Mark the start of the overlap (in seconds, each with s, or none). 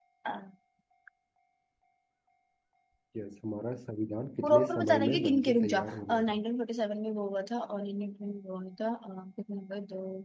4.4 s